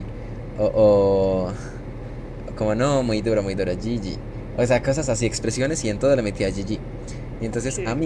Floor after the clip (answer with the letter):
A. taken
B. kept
B